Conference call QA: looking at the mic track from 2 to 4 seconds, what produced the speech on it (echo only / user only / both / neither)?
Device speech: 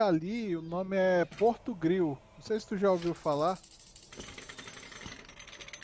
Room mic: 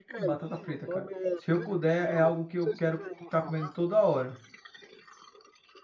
both